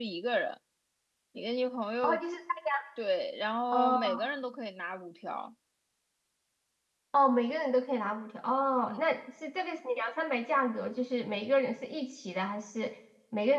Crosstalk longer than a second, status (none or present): none